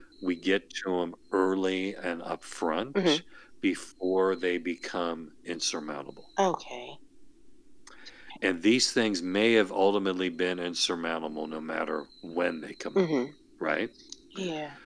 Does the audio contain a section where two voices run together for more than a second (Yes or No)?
No